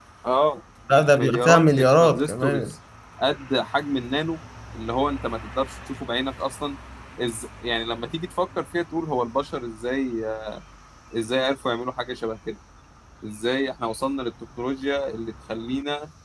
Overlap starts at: 1.2 s

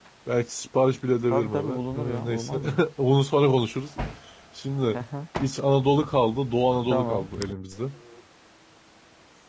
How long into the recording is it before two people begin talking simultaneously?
1.3 s

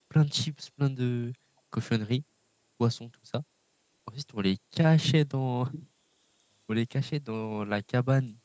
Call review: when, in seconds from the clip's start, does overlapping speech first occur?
none

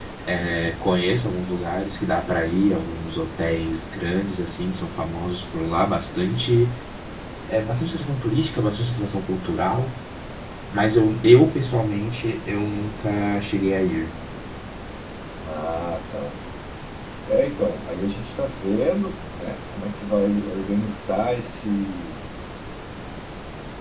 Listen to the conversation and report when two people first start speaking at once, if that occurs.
none

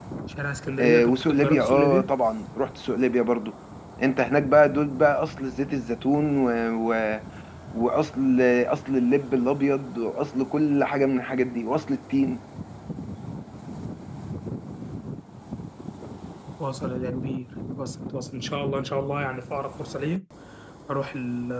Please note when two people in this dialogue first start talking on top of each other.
0.8 s

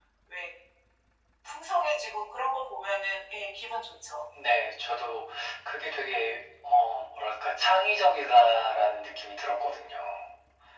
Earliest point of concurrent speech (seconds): none

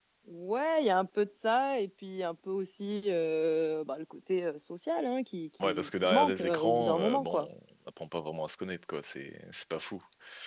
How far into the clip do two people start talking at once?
5.6 s

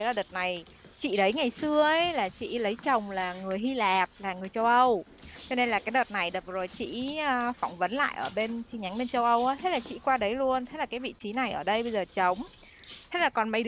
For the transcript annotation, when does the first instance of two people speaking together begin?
none

